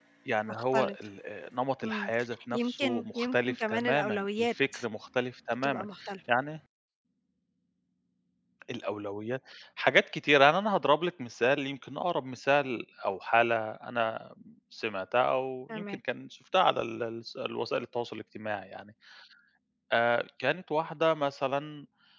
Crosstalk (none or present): present